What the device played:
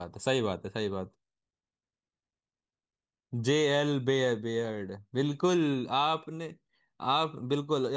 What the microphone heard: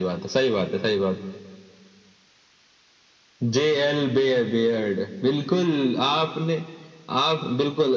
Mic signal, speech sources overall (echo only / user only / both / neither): echo only